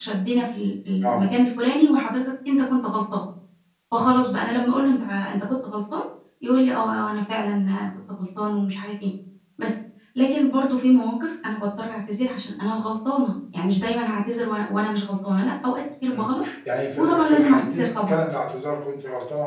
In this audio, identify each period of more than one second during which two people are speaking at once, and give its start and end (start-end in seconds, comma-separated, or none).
16.9-18.1